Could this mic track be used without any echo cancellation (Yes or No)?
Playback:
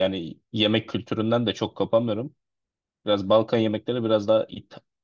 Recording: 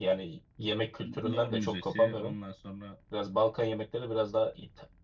No